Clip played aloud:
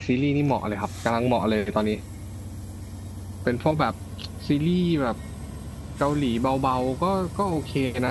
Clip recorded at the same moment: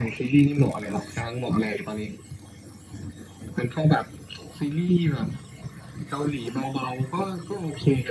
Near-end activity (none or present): none